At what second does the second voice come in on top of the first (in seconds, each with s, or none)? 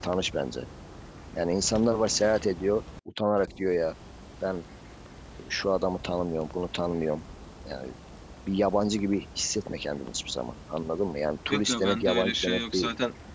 11.5 s